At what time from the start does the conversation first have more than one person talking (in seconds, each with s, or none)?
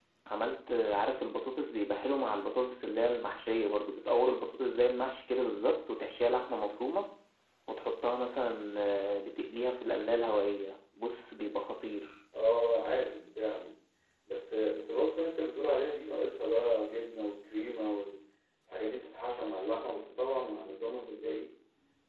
none